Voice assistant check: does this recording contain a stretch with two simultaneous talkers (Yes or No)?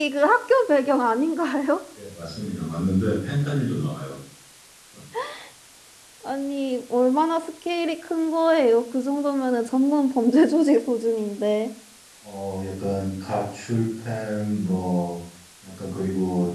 No